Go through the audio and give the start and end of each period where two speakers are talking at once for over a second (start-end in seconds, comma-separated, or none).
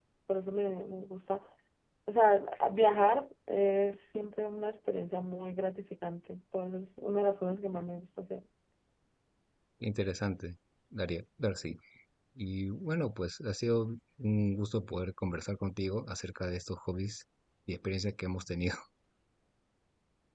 none